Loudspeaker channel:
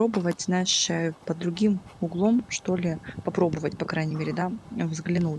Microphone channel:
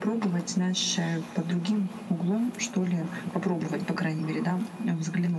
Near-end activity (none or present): none